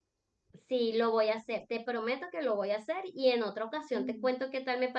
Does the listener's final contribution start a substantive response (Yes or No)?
No